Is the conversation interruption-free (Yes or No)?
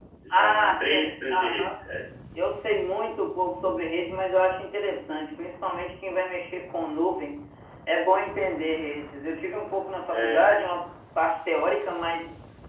No